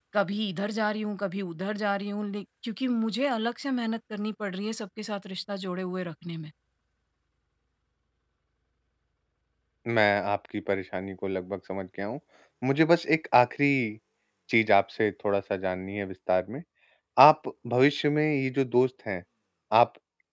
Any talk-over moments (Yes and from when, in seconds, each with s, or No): No